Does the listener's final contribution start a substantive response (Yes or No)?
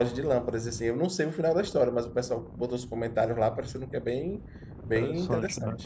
Yes